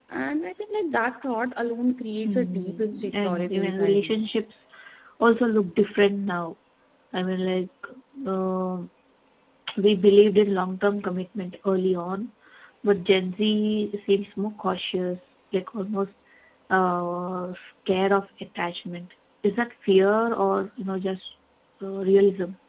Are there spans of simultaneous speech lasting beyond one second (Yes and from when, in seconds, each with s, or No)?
Yes, from 2.2 s